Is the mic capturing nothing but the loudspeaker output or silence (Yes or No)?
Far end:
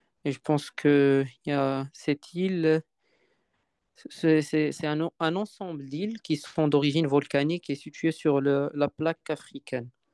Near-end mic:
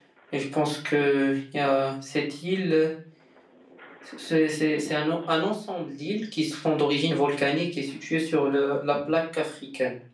Yes